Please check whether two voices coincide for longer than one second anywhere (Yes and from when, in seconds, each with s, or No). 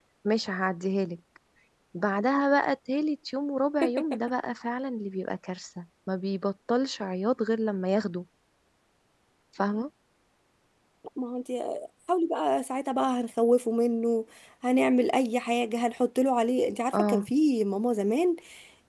No